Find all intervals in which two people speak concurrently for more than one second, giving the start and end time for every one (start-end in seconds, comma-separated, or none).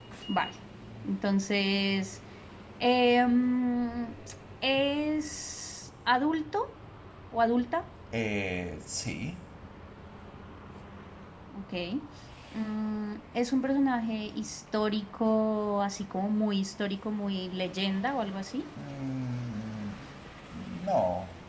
none